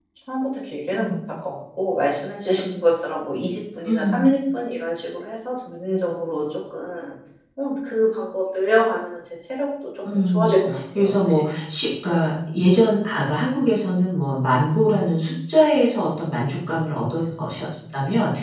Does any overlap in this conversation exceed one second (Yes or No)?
Yes